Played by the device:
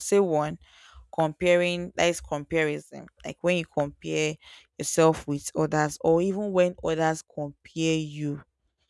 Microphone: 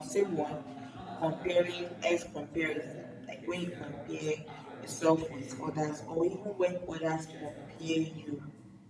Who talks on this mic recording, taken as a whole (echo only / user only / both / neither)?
both